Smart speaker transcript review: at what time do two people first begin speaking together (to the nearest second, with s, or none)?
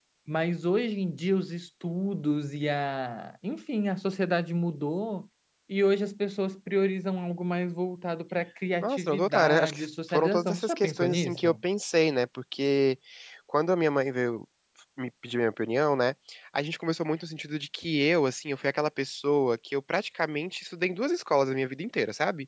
9 s